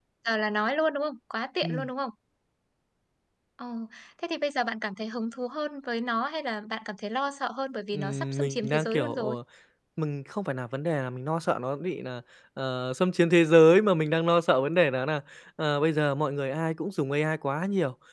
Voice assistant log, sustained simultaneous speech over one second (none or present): present